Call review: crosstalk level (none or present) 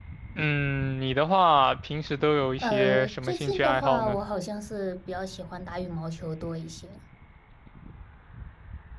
present